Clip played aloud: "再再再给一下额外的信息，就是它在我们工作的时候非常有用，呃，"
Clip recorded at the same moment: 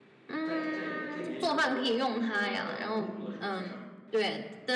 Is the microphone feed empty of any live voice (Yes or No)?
No